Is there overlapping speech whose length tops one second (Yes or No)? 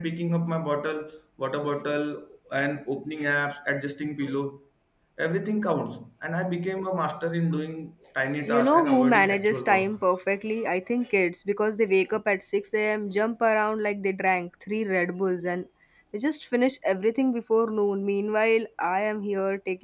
Yes